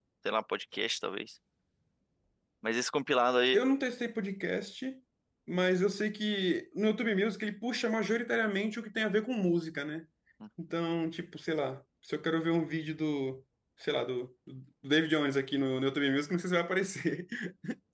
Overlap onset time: none

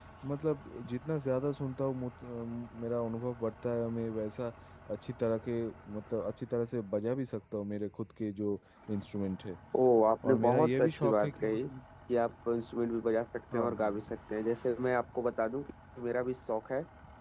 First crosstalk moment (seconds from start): 10 s

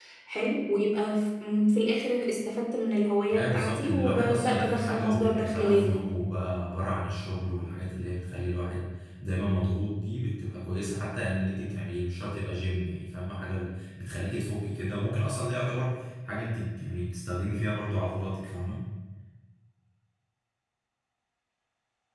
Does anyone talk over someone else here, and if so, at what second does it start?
3 s

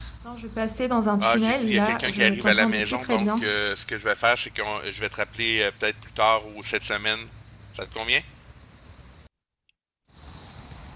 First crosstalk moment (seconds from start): 1 s

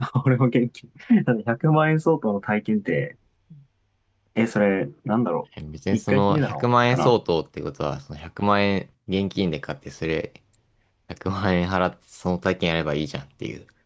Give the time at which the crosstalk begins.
6 s

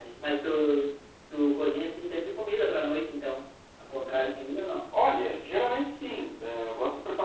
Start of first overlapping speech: none

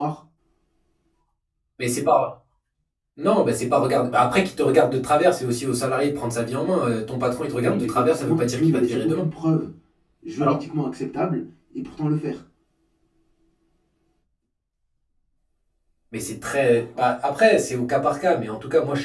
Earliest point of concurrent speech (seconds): 8 s

